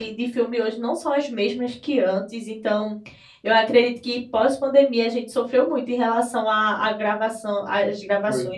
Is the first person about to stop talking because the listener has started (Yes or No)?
No